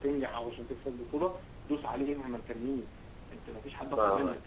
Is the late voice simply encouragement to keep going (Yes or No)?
No